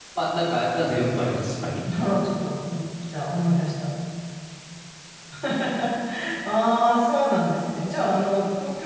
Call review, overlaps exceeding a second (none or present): none